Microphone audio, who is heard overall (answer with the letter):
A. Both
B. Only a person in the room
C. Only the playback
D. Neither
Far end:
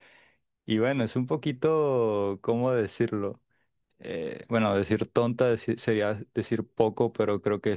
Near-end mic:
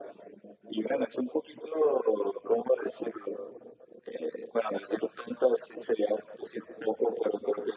C